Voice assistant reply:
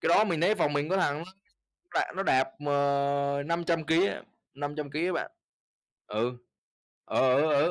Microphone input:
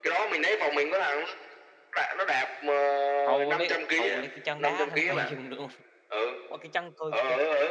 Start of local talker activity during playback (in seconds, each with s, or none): 3.2 s